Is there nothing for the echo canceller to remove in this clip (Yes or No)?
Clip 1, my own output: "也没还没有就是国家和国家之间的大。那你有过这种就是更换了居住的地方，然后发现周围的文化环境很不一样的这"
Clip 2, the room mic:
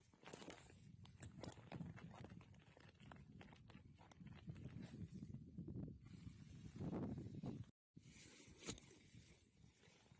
Yes